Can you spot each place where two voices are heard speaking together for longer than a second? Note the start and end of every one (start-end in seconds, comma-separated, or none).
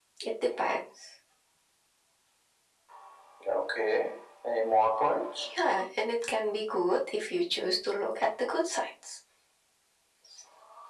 none